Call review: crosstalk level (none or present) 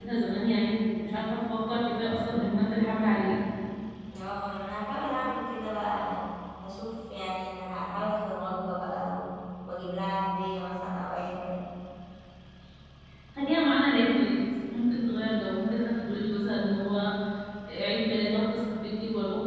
none